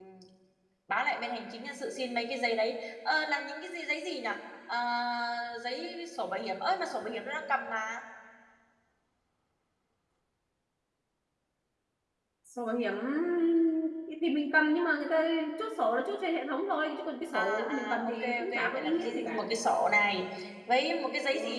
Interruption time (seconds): 17.3 s

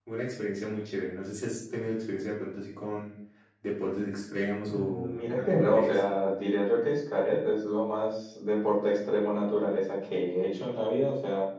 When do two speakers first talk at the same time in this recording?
4.7 s

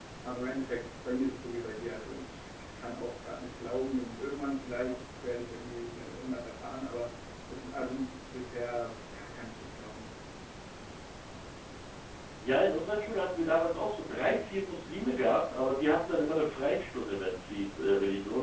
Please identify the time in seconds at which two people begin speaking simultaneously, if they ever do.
none

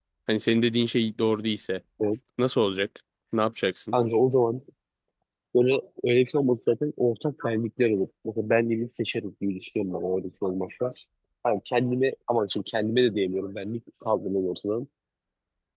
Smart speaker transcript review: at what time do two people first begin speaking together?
none

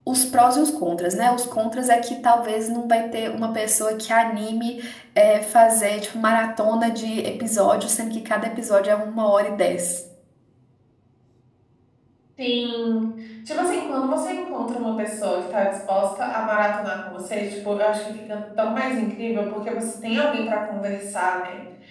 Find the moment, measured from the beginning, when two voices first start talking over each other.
none

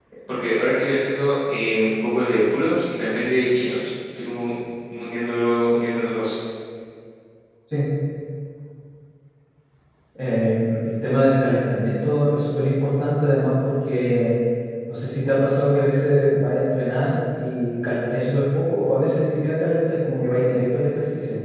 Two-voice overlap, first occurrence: none

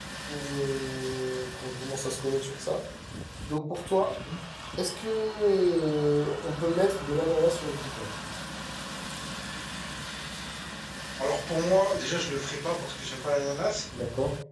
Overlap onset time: none

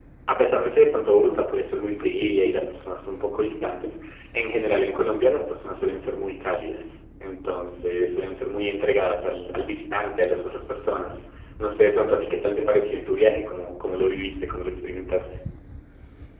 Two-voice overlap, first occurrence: none

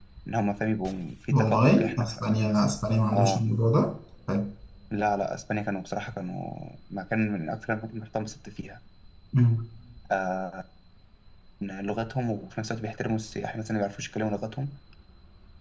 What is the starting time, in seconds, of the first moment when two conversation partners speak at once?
1.3 s

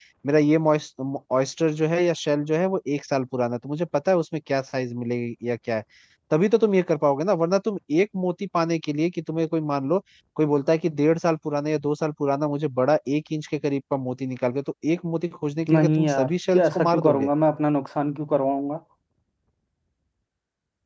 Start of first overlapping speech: 15.7 s

